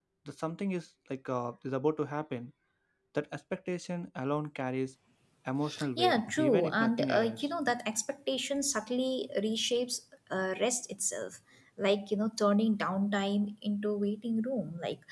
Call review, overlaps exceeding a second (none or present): present